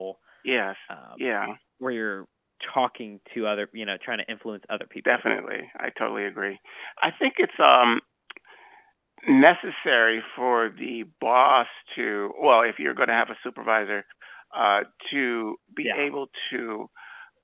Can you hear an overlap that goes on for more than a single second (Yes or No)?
No